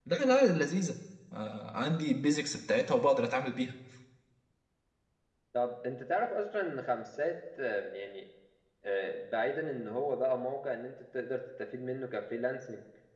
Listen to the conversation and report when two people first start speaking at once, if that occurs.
none

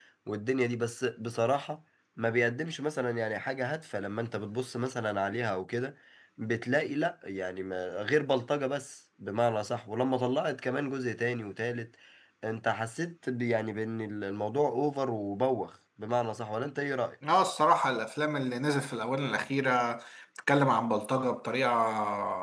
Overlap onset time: none

